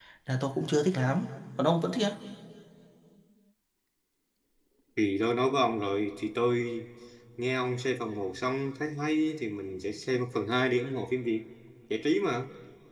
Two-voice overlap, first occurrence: none

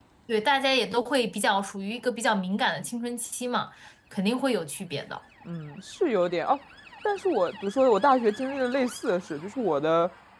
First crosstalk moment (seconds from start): none

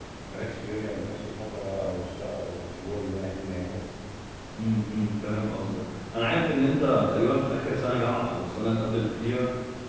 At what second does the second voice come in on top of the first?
none

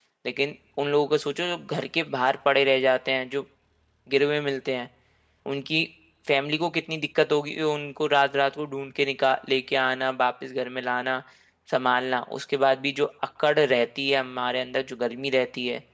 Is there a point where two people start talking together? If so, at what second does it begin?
none

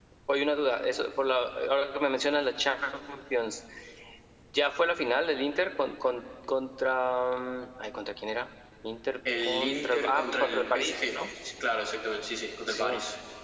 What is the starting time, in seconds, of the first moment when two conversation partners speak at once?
9.4 s

